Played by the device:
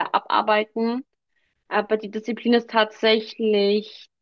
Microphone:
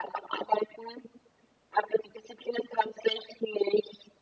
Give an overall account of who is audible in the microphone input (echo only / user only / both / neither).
echo only